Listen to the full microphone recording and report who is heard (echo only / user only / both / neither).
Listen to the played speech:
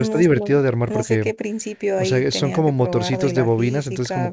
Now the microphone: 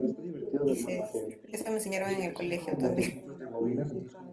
both